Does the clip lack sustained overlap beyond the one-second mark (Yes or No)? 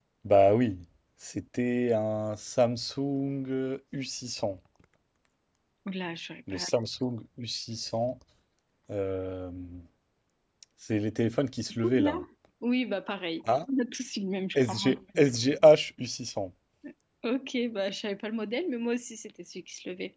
Yes